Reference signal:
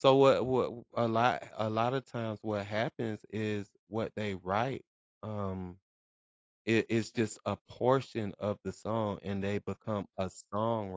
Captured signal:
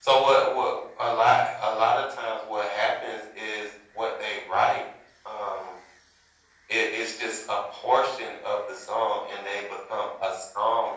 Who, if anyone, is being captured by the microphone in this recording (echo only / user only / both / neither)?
echo only